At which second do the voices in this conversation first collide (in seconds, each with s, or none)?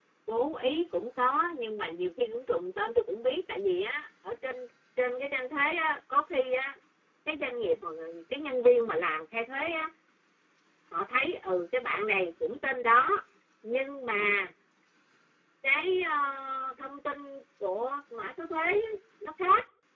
none